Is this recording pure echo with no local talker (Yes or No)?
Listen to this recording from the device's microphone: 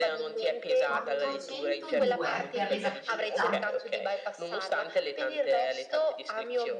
No